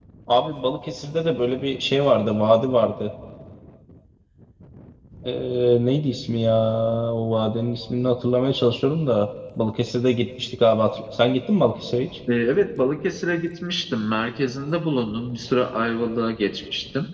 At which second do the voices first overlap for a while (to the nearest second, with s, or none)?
none